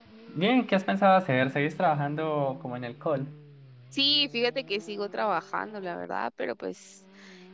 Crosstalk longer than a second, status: none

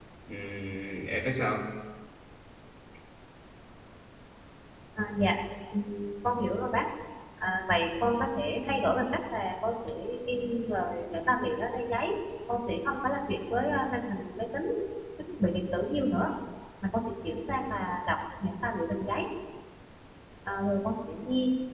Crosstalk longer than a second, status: none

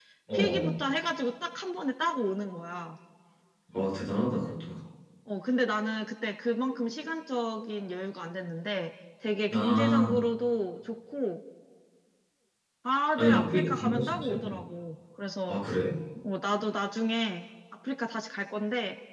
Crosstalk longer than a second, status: present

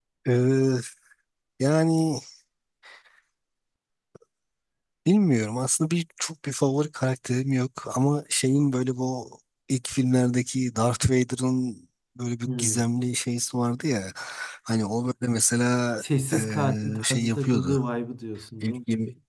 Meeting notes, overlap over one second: present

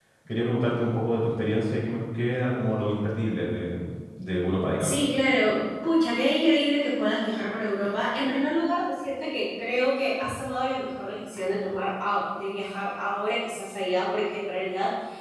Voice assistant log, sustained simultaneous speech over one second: none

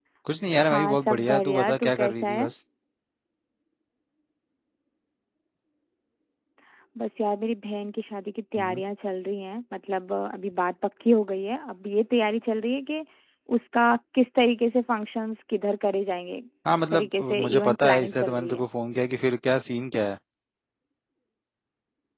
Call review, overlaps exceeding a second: present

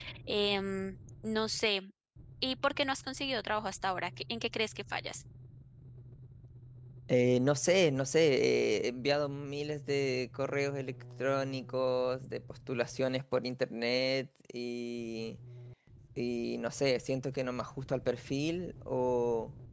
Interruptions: none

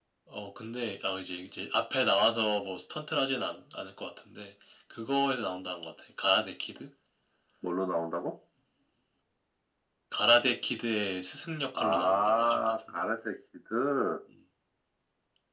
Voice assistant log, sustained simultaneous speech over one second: present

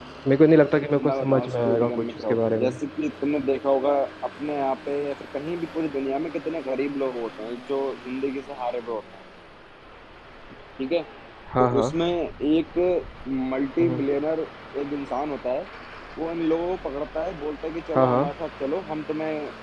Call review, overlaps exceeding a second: present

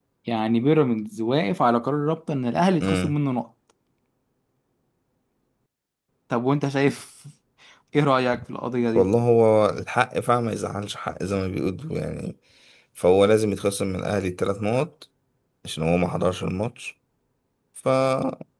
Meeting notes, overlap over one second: none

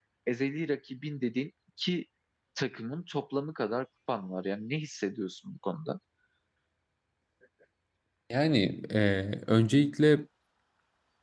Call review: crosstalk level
none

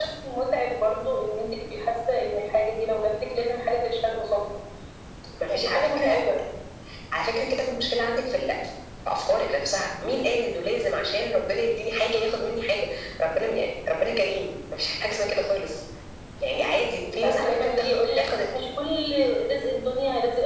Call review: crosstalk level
present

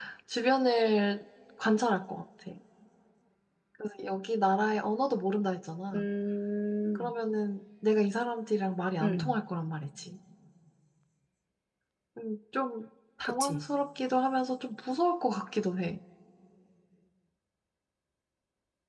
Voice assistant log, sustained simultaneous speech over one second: none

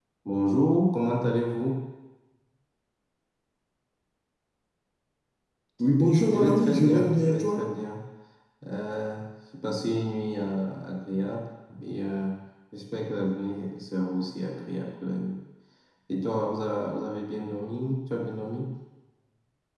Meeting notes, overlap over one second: present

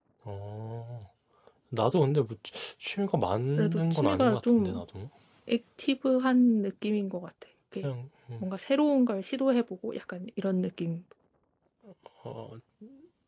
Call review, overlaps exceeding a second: present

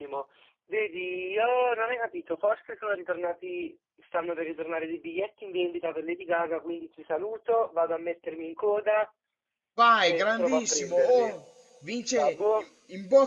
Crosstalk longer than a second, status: present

